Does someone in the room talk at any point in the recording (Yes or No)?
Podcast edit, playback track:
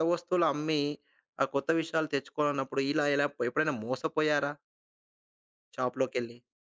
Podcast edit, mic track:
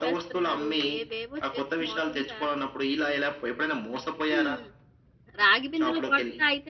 Yes